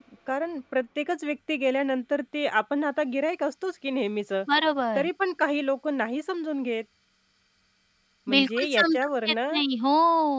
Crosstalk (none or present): present